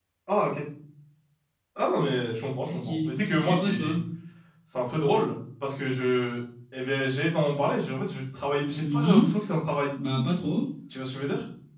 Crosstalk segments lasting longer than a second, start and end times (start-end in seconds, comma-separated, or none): 2.6-4.0